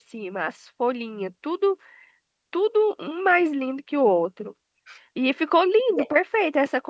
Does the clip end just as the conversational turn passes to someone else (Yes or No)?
No